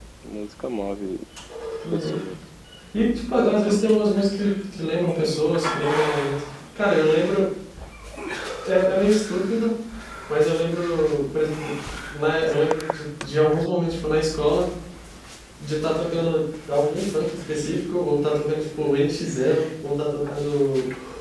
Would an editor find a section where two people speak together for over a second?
No

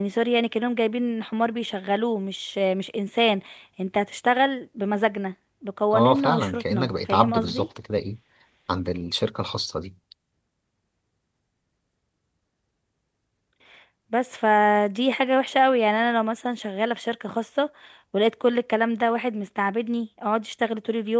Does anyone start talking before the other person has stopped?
Yes, from 5.9 s

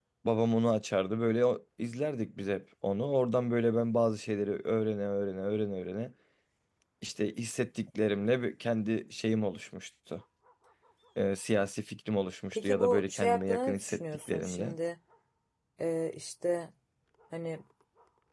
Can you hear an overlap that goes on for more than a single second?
Yes, from 12.5 s

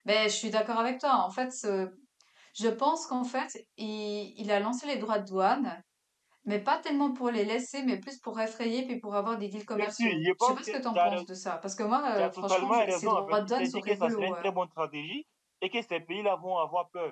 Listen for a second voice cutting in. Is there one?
Yes, from 9.8 s

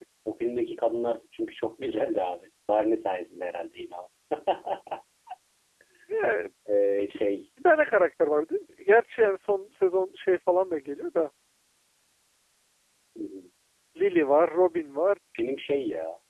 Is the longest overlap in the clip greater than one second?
No

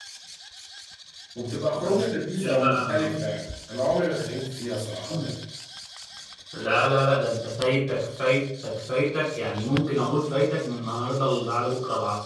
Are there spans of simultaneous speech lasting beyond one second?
Yes, from 1.8 s

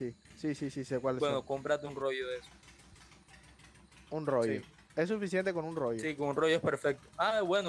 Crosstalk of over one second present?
No

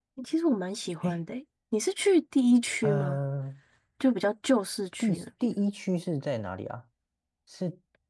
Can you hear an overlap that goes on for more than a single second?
No

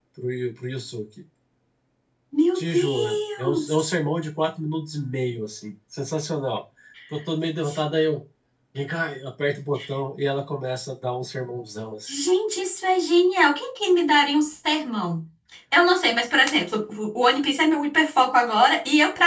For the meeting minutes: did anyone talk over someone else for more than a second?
Yes, from 2.5 s

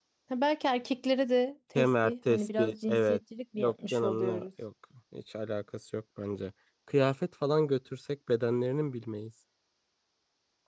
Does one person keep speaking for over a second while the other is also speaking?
Yes, from 1.8 s

